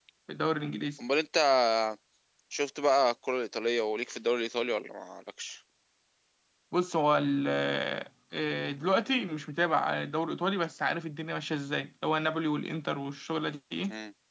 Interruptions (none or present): none